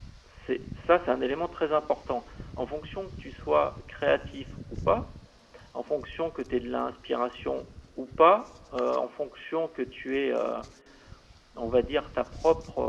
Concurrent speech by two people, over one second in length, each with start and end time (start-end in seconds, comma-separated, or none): none